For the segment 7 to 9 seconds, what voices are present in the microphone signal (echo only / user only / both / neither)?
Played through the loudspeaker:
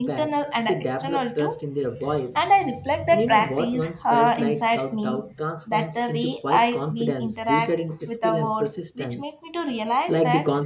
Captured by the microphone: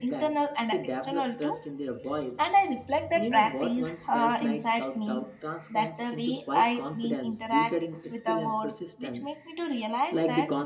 echo only